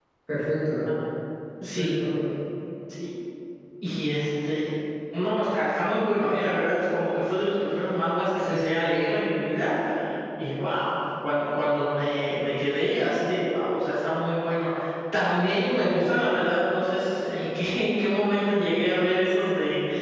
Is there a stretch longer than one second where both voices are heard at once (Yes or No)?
No